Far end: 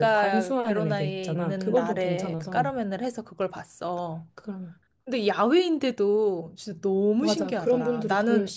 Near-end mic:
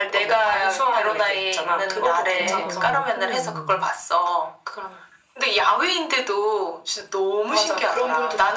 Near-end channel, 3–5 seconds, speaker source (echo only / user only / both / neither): both